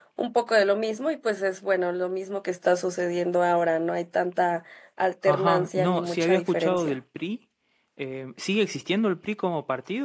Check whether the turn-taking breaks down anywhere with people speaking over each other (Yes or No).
Yes